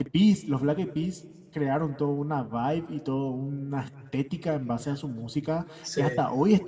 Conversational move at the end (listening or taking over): listening